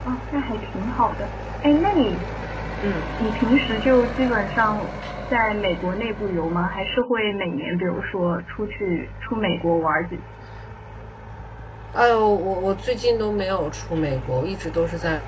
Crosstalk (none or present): none